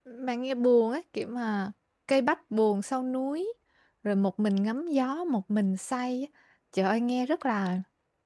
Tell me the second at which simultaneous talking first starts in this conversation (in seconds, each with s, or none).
none